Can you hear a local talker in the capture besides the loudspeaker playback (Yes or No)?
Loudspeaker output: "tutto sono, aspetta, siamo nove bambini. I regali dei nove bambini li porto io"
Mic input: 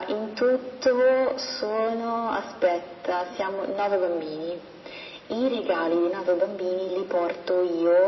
No